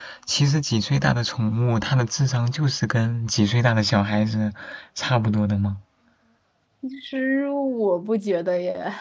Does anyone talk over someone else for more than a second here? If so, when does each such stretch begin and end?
none

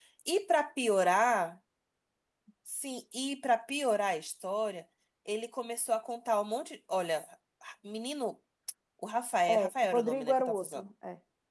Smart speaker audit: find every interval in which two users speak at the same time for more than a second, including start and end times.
9.5-10.9

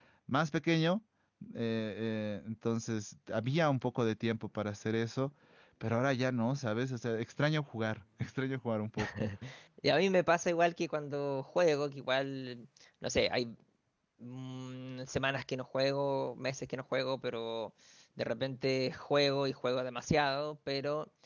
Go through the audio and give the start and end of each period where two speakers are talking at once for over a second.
none

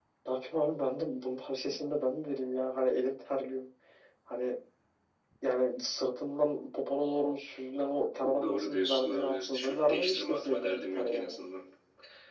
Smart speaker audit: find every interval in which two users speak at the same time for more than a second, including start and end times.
8.4-11.4

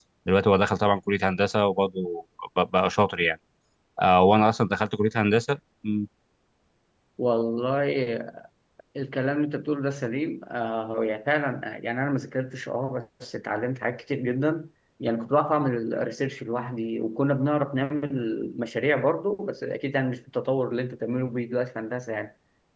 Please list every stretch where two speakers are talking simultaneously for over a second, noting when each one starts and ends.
none

